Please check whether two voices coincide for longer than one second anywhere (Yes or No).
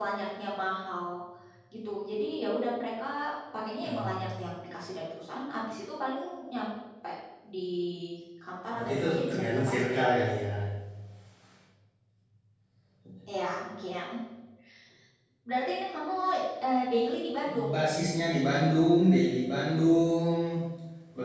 Yes